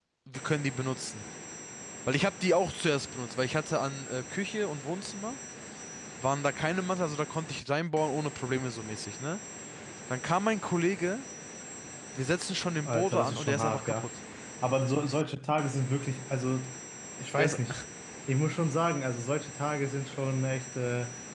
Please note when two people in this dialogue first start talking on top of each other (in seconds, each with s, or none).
12.8 s